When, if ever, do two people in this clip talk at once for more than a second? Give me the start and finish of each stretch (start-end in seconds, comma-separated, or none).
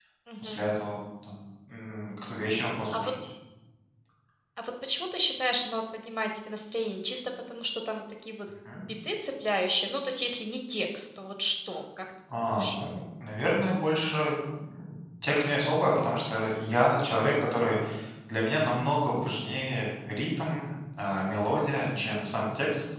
none